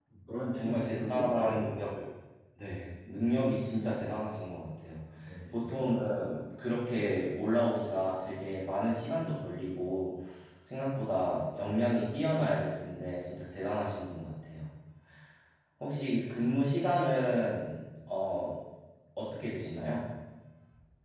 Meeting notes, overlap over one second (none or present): present